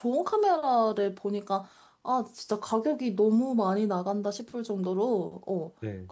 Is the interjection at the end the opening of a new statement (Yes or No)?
No